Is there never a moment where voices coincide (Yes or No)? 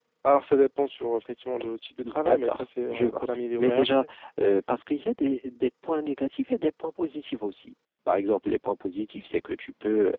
No